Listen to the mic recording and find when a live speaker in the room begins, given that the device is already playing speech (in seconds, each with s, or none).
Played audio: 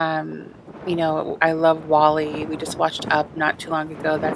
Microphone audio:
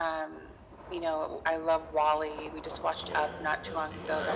2.6 s